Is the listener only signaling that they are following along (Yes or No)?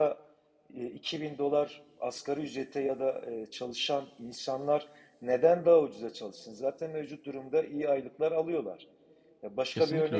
Yes